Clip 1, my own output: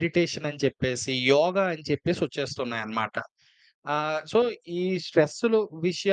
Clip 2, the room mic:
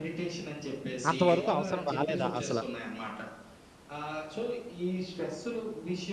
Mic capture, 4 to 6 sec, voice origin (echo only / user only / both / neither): echo only